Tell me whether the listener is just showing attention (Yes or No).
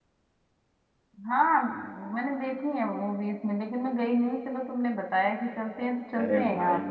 No